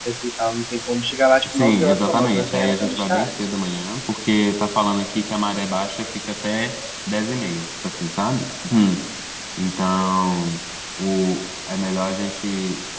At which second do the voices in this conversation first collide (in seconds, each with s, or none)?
1.4 s